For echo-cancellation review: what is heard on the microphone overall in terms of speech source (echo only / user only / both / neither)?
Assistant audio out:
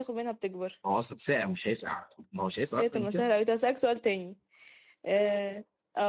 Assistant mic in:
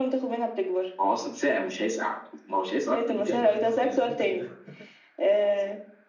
both